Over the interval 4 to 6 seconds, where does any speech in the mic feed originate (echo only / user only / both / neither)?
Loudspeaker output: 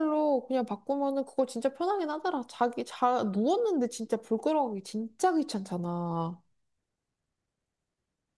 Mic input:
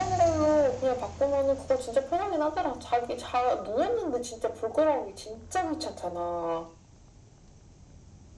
echo only